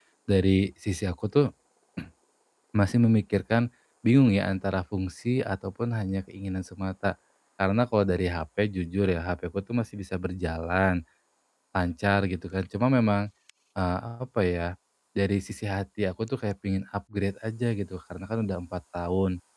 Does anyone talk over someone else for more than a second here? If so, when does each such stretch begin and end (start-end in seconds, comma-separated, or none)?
none